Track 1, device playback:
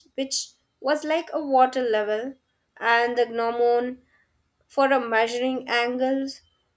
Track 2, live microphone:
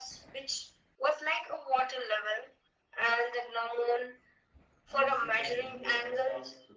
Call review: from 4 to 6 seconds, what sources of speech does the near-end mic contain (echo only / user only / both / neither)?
both